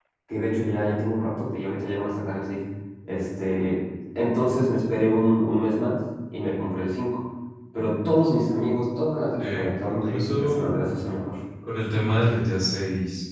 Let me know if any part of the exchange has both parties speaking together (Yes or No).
Yes